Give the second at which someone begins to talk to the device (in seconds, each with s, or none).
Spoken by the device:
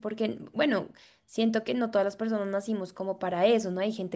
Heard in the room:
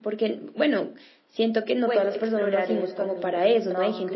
1.8 s